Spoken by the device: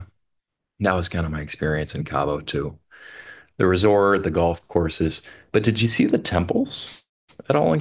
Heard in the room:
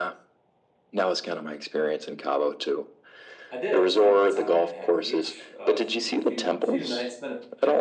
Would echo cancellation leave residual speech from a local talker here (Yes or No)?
Yes